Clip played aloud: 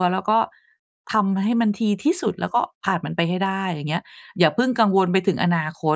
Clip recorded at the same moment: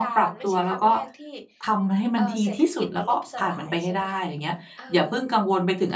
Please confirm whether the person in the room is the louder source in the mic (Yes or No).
No